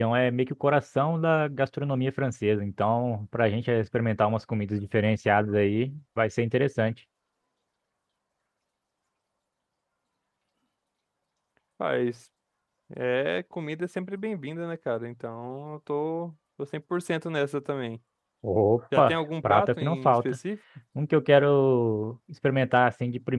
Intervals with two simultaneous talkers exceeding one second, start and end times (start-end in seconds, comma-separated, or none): 19.0-20.4